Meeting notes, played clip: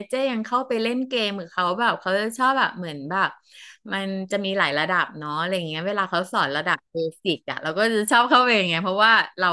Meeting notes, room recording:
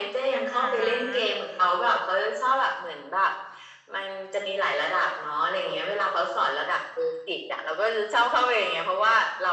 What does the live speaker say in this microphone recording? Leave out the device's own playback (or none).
อ่า